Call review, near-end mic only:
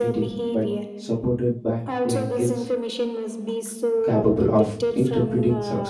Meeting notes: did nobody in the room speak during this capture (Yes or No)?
No